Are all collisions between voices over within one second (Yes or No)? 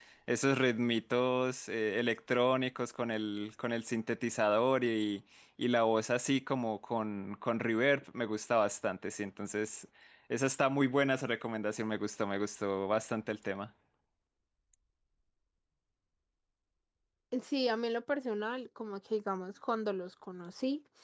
Yes